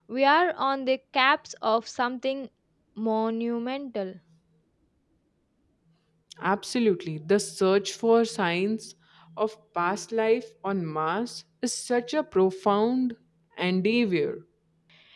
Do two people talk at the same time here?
No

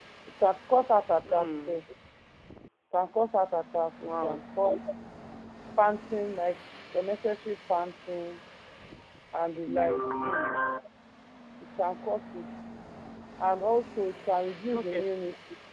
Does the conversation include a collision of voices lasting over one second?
No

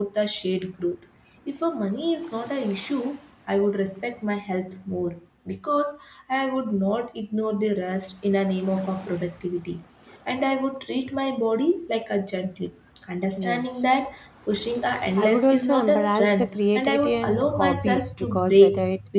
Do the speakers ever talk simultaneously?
Yes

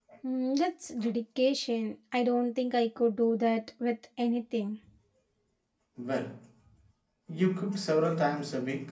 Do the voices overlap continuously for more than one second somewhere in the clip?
No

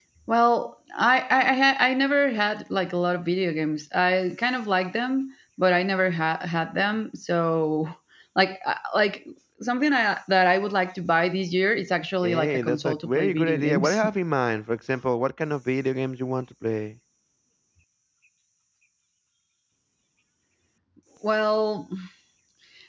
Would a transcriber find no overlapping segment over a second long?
No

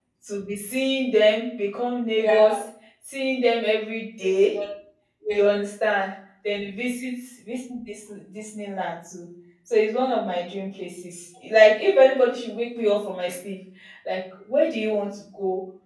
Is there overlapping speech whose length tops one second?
No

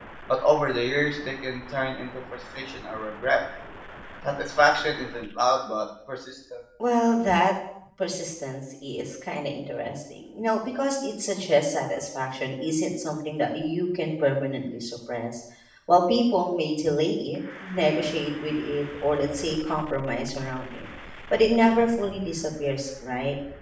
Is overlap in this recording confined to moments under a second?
Yes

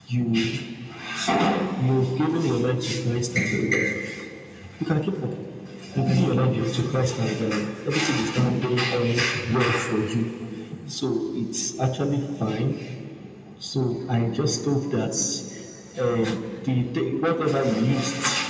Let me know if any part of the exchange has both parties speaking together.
No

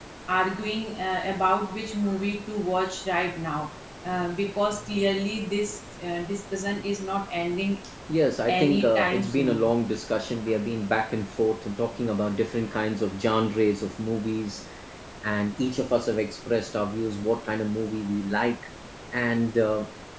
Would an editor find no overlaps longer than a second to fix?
No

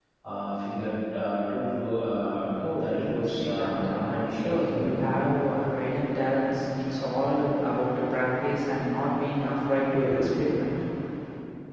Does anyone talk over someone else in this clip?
Yes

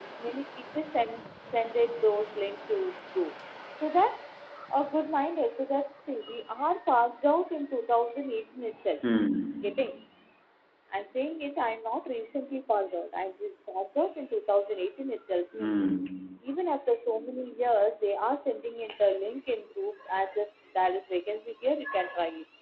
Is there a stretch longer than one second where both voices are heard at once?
No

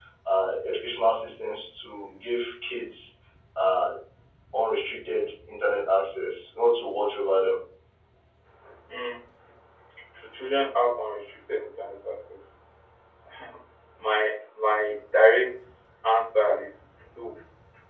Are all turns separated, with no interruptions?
Yes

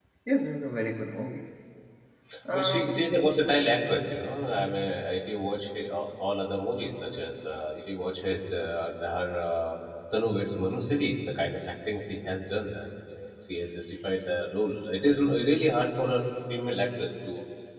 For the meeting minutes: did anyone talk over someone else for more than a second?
No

